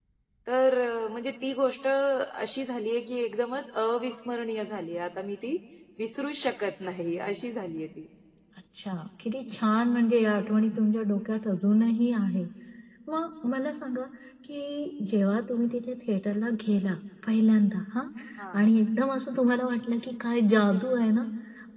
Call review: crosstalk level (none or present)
none